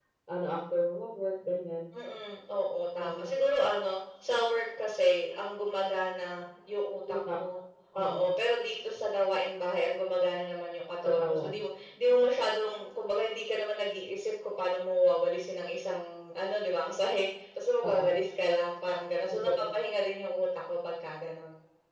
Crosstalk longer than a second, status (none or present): none